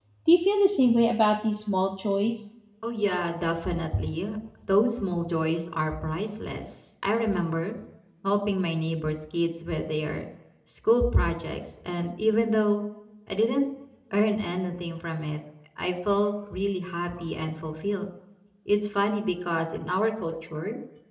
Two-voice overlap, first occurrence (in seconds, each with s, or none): none